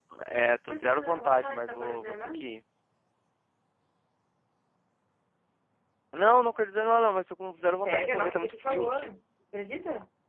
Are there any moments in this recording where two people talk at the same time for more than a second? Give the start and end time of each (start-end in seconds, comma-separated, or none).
0.7-2.4, 7.8-9.1